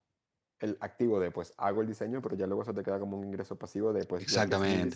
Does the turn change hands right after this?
Yes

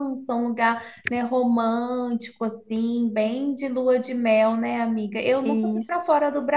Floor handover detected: No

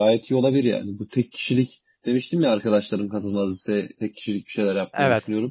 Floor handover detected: No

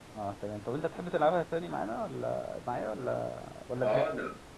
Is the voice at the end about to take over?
Yes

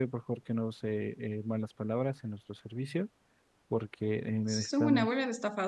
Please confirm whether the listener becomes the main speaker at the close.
Yes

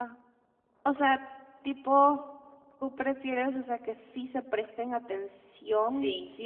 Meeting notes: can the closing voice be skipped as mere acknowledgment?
Yes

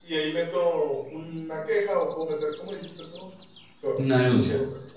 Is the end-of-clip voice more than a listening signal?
No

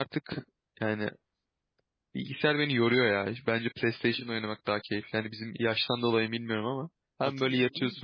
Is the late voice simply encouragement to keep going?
Yes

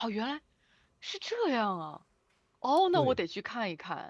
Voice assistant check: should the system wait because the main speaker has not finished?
Yes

